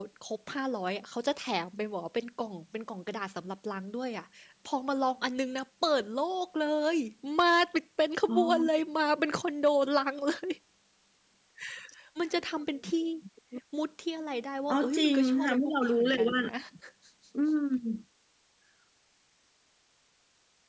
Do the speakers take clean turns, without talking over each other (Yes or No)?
No